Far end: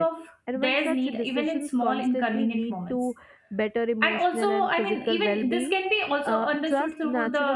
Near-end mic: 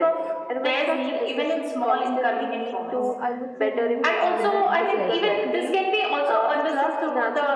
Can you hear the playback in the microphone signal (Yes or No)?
Yes